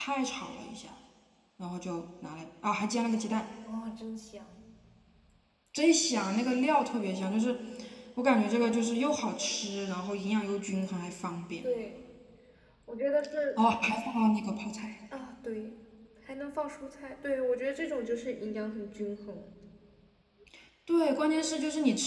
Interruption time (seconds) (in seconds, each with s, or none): none